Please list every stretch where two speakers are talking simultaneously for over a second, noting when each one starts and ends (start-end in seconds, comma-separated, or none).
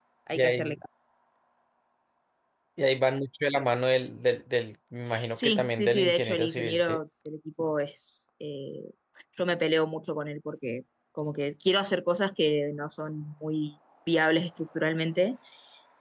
5.3-7.0